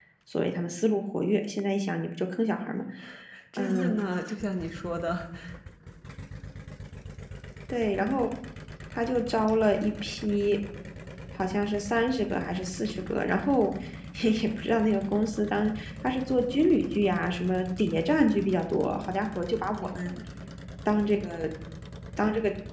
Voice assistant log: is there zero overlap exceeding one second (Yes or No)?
Yes